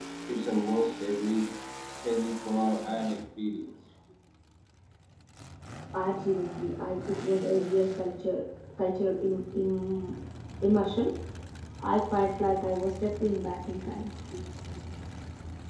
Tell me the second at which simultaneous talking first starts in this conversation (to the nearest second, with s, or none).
none